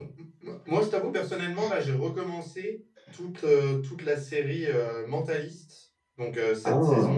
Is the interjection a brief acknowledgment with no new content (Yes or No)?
Yes